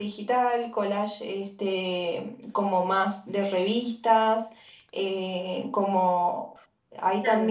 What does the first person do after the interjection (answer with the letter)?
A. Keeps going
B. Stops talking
B